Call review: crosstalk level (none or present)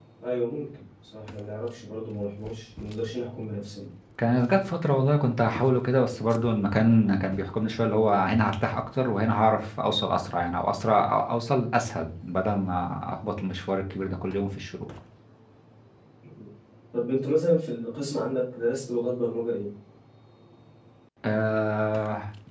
none